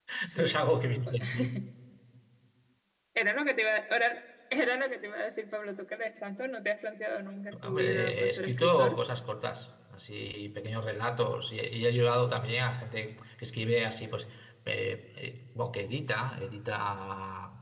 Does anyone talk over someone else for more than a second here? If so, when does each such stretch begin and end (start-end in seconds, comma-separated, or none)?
7.6-9.0